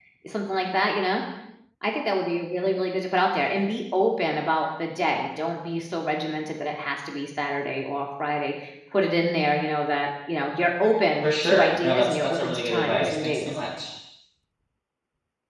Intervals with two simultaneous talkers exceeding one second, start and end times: 11.2-13.6

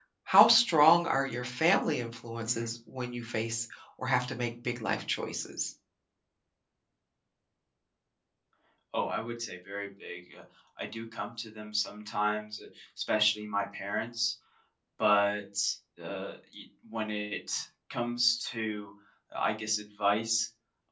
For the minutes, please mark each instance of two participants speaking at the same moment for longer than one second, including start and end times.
none

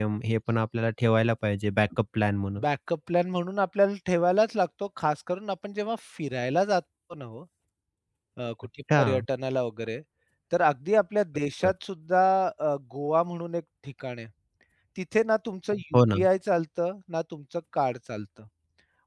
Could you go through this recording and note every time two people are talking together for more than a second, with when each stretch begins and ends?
none

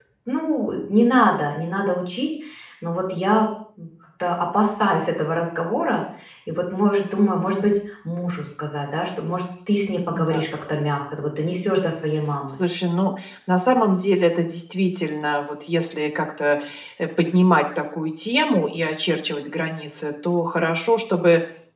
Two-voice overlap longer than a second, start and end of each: none

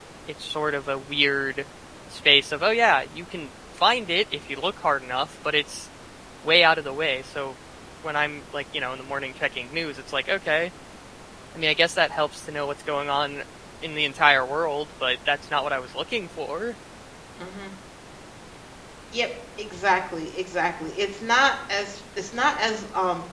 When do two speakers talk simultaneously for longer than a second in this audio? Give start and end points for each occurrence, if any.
none

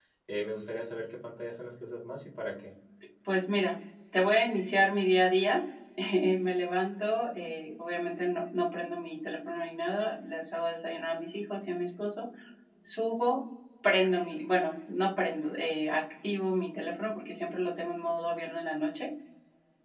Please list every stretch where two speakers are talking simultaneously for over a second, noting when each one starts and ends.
none

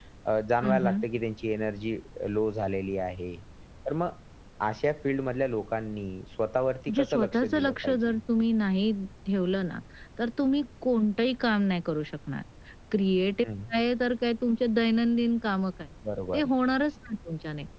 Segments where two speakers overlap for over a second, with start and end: 7.0-8.2

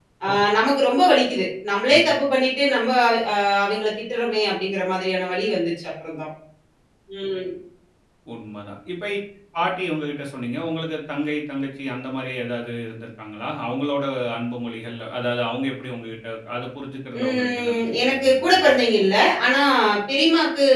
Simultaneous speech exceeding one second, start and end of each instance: 17.2-18.6

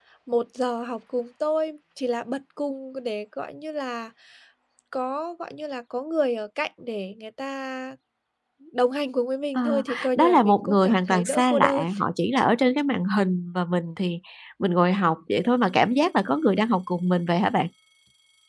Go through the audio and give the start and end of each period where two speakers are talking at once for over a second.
9.6-11.9

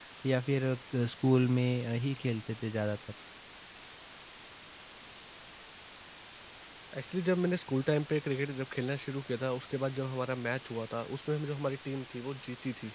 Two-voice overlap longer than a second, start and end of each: none

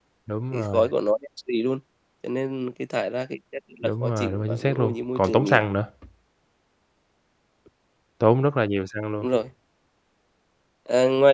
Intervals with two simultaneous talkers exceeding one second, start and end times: 3.8-5.6

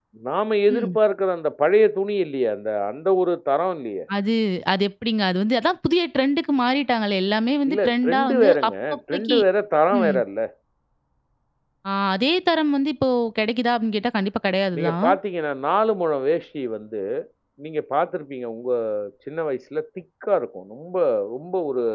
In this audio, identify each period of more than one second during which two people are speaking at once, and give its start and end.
7.7-9.4

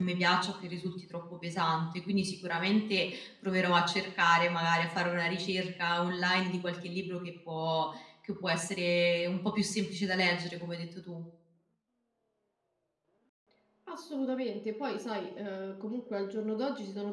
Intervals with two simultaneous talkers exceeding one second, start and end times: none

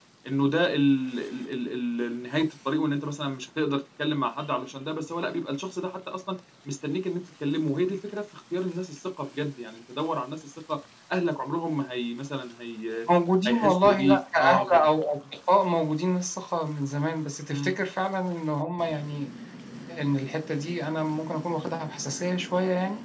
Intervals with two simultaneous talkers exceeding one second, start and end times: 13.5-14.9

